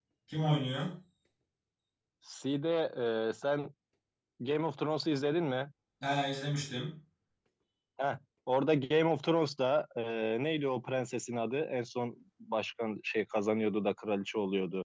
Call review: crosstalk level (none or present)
none